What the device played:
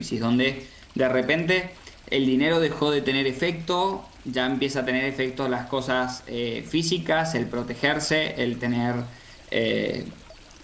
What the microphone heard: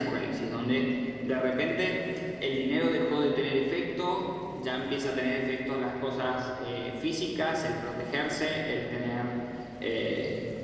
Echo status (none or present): present